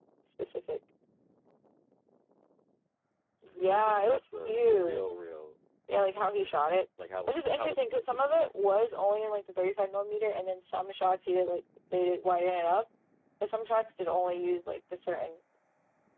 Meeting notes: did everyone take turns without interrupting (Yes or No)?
No